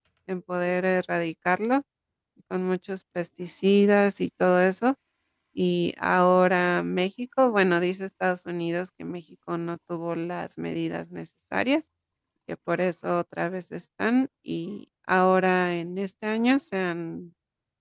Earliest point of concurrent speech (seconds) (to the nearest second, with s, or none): none